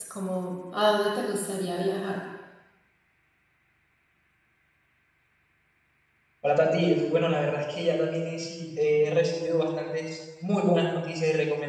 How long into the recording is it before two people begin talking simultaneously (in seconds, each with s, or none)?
none